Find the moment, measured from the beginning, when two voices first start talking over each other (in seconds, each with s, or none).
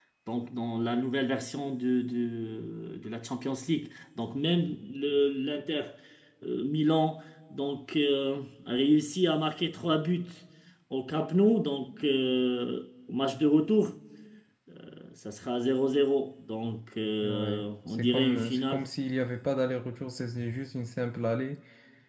17.2 s